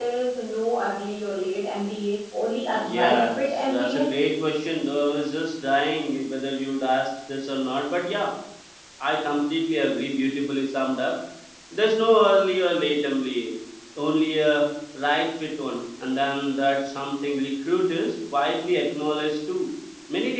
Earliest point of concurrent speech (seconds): 2.7 s

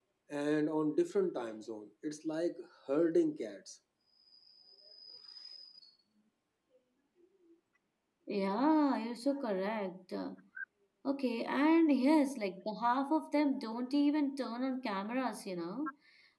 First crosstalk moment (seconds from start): none

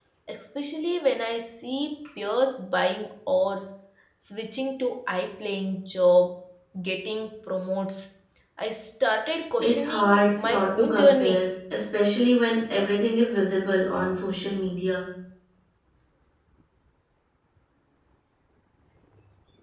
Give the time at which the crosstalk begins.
9.6 s

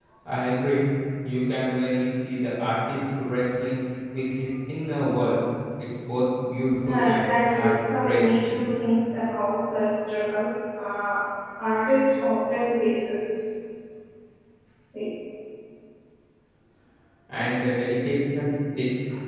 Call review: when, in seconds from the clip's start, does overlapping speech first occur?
6.8 s

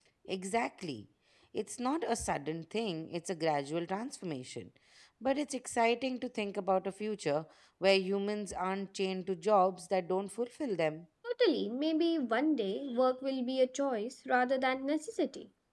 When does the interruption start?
none

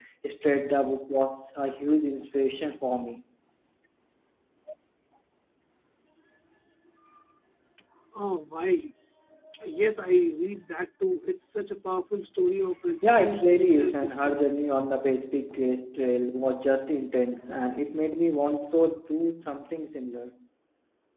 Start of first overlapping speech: 13.0 s

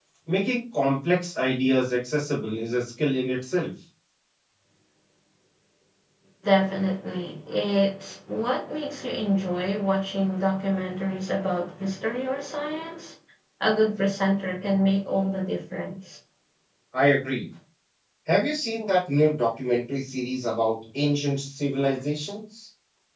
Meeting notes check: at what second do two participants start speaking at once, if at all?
none

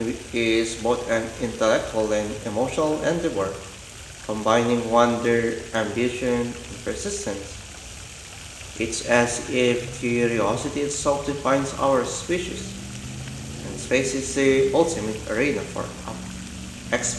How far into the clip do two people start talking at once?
none

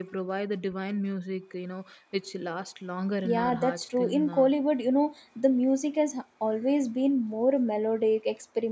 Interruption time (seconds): 3.2 s

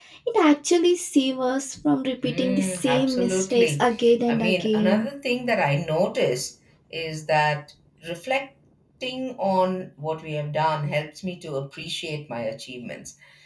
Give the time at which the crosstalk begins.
2.2 s

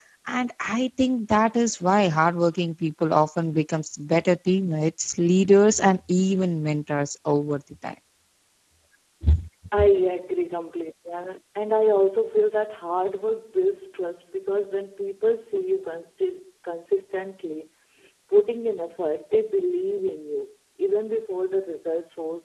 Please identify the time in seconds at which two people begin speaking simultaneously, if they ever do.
none

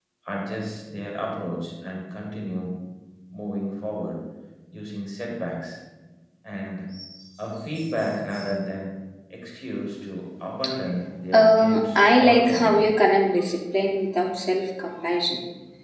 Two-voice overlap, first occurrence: 11.3 s

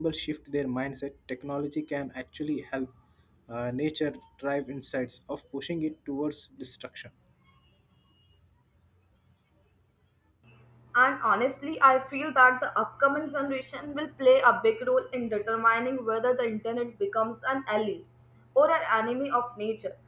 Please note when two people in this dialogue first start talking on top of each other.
none

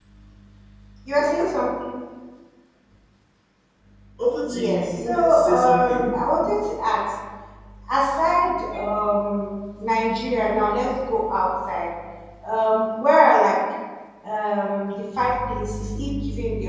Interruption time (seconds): 4.5 s

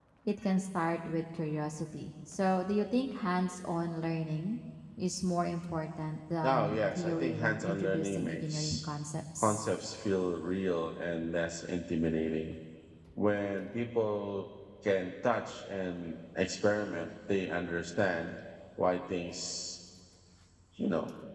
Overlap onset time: 6.4 s

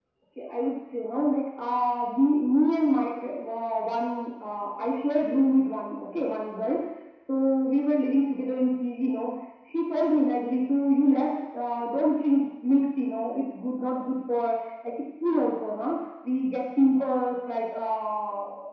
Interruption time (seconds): none

